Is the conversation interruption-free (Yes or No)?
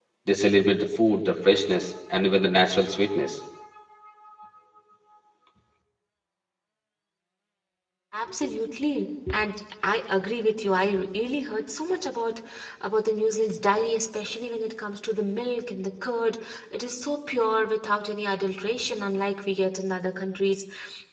Yes